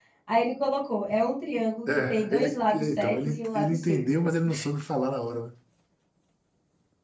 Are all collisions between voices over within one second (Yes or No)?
No